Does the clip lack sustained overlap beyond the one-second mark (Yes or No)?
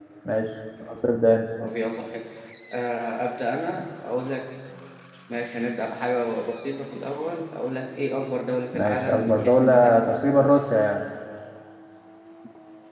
No